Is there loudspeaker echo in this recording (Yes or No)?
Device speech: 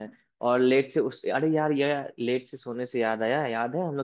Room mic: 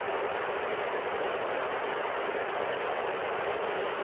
No